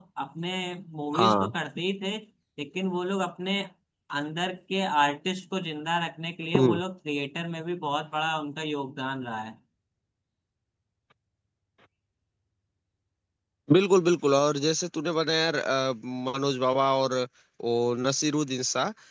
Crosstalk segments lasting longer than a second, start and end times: none

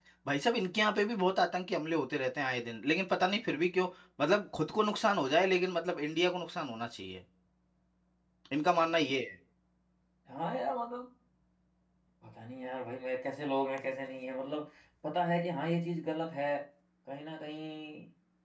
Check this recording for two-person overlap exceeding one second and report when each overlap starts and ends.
none

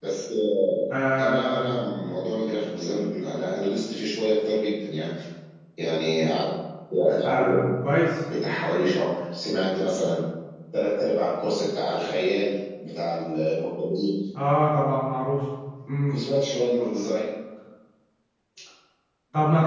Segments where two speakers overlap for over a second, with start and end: none

